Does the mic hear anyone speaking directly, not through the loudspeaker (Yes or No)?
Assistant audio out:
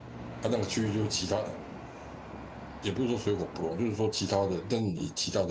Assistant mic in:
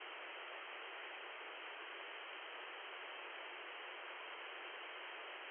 No